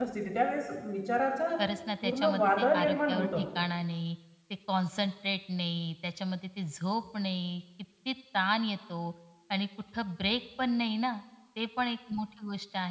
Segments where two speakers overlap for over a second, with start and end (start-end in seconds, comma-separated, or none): 2.0-3.4